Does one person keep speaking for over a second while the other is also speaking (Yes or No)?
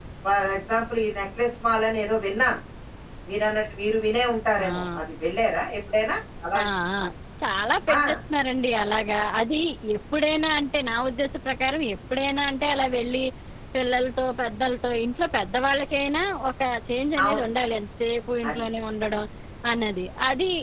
No